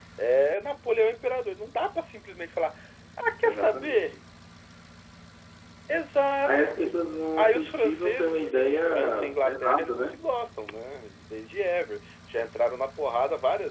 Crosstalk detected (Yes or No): Yes